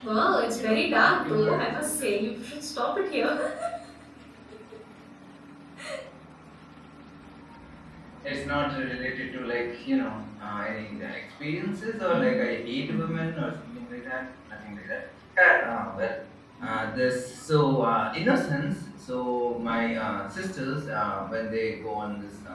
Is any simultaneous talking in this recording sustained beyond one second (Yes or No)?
Yes